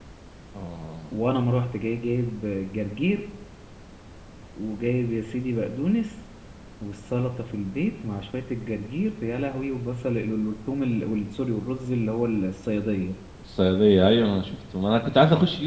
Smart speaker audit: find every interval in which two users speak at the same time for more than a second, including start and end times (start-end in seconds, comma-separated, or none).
none